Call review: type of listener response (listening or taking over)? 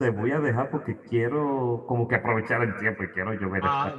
taking over